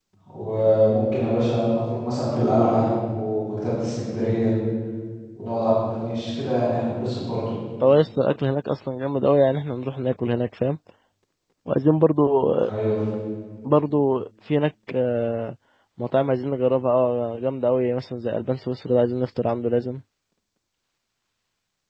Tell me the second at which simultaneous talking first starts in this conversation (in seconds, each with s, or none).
none